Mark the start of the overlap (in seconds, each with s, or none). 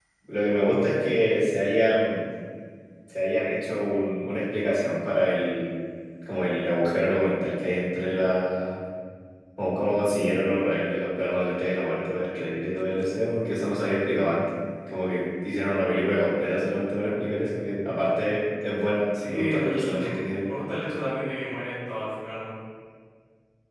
19.1 s